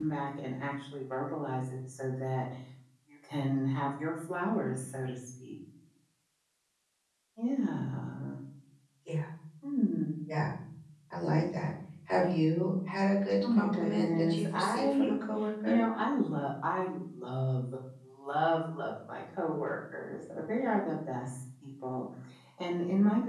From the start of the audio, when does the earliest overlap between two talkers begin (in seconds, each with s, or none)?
13.4 s